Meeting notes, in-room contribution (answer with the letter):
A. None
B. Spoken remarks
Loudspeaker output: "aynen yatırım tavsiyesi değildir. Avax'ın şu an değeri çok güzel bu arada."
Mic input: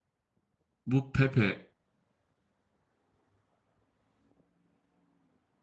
B